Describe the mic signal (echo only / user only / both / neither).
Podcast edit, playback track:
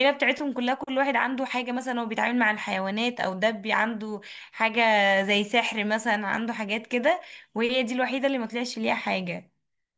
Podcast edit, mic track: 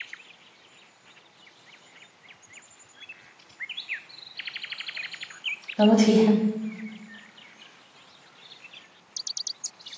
user only